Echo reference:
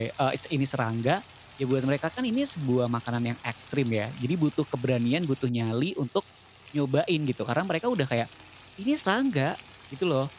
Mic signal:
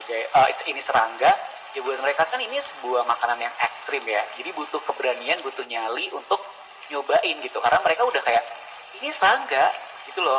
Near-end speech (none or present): none